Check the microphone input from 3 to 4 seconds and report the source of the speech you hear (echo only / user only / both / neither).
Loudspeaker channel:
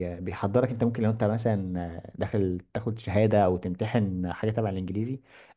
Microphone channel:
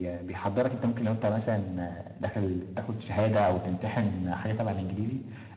echo only